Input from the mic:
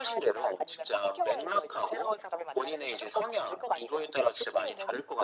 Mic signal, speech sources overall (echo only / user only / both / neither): echo only